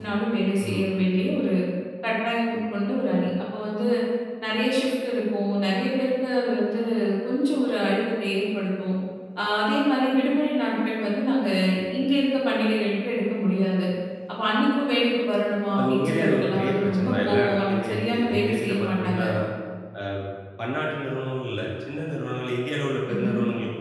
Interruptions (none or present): present